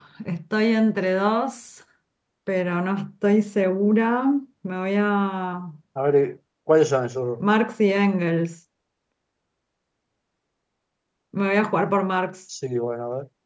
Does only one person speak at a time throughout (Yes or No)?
Yes